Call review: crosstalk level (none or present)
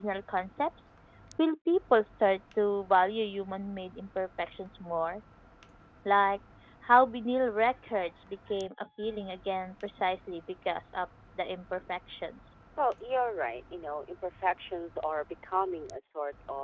none